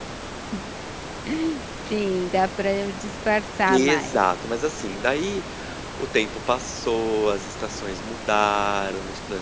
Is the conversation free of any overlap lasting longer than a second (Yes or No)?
Yes